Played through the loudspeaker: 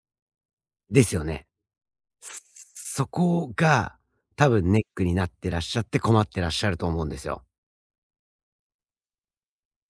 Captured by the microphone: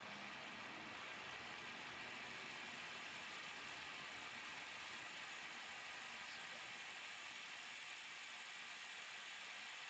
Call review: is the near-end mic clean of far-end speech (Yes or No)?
Yes